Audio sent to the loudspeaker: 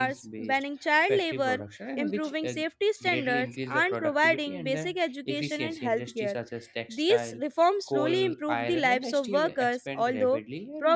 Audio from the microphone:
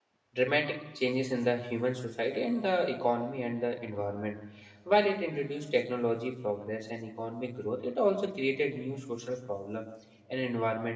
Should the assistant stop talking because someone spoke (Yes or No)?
Yes